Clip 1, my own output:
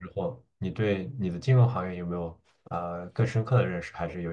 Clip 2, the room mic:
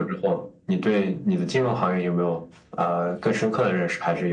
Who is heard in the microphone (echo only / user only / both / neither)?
echo only